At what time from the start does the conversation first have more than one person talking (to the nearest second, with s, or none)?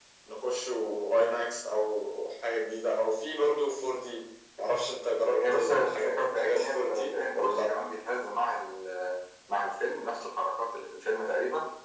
5 s